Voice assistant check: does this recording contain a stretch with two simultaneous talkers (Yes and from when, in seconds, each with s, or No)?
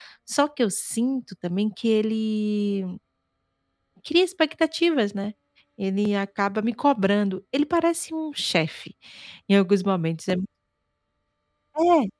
No